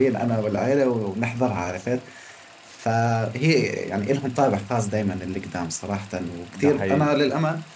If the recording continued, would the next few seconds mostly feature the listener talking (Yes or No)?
No